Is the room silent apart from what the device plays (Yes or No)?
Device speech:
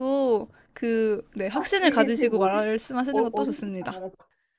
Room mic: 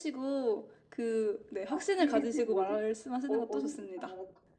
Yes